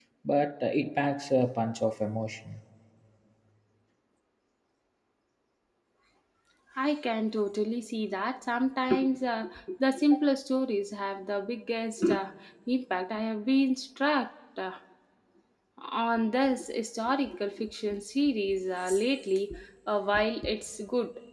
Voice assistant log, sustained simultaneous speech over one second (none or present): none